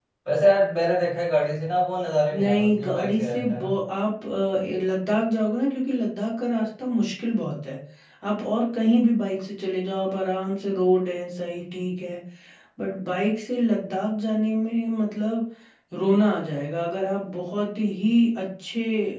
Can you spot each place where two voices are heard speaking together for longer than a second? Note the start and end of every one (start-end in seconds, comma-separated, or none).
2.4-3.7